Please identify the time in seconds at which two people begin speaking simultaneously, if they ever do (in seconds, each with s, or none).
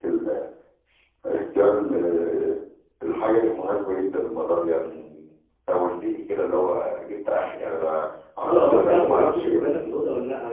8.4 s